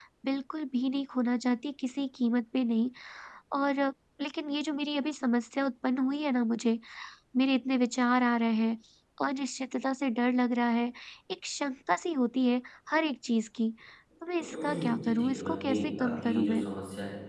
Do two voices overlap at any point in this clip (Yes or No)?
Yes